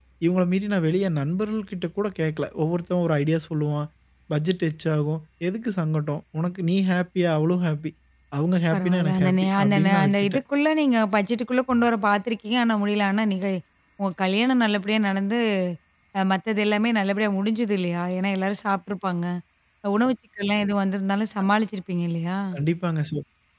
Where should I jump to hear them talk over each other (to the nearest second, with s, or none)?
9 s